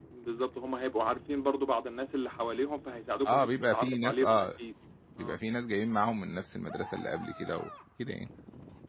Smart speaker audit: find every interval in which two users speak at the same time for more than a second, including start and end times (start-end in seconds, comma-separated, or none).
3.3-4.5